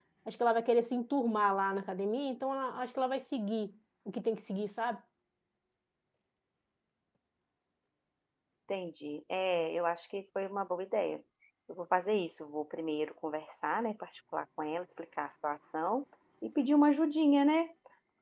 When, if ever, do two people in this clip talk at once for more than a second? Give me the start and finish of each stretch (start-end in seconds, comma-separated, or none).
none